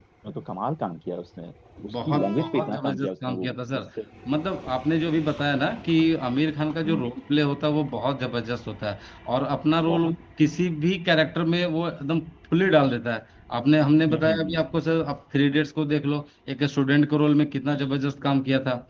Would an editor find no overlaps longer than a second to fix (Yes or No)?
No